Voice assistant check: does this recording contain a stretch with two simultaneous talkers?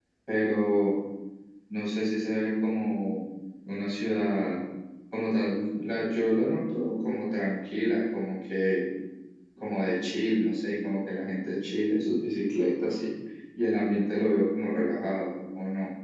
No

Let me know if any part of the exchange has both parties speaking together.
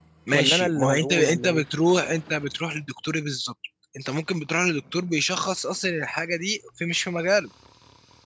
Yes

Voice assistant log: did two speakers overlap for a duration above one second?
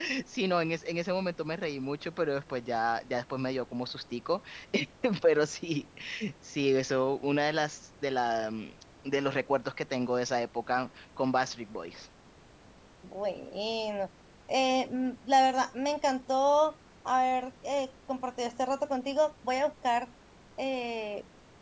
No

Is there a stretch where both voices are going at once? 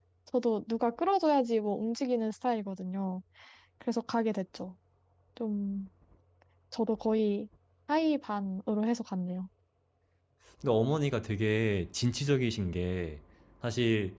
No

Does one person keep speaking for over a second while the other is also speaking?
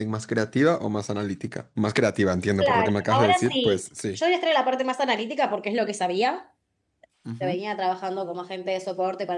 Yes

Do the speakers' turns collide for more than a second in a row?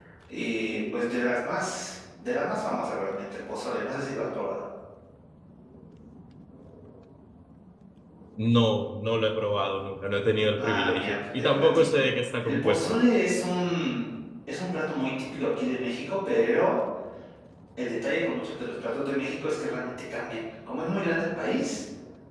Yes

